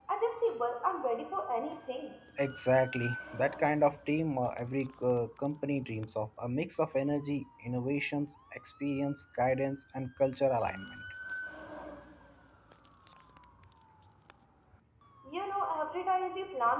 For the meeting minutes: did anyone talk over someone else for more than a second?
No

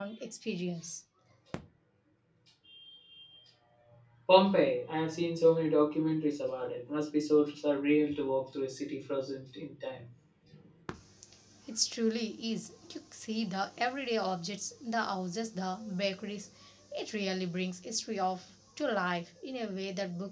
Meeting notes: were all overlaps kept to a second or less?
Yes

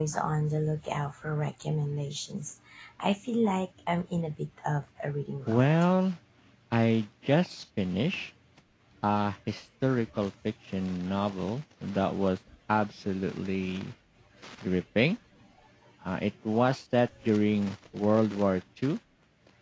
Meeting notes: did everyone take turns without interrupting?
Yes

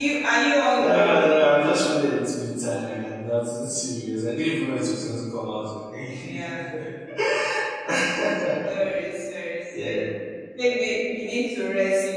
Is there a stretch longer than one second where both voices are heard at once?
No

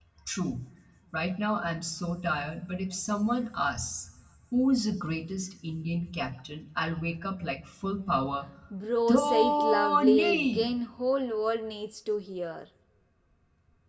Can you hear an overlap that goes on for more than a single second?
Yes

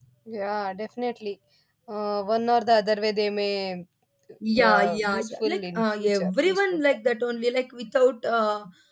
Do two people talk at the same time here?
Yes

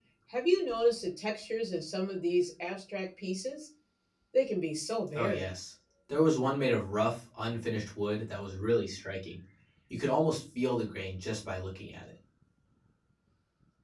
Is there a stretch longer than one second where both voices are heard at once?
No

